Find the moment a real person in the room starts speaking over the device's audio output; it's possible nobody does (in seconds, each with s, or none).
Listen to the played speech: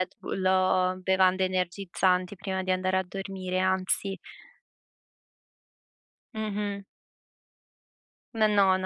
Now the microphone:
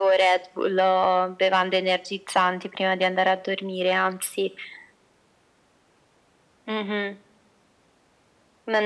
none